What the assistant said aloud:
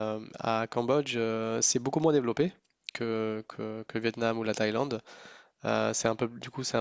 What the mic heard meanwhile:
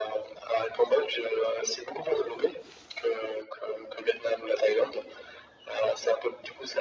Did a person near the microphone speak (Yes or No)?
No